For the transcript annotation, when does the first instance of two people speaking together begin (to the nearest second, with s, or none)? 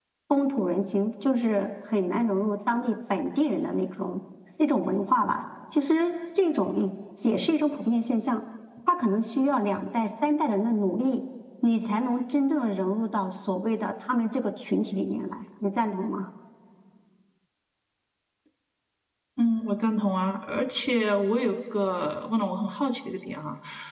none